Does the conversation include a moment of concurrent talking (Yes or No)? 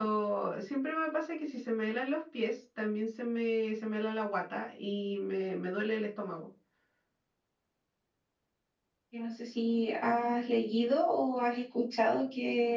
No